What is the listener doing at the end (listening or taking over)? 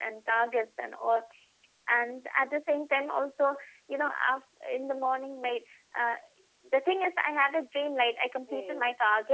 listening